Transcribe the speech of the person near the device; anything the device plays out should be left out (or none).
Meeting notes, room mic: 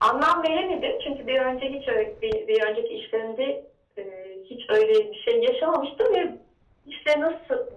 none